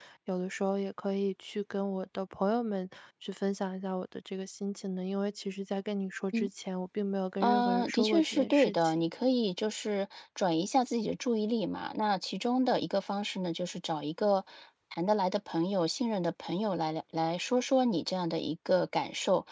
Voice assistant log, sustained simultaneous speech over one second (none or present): present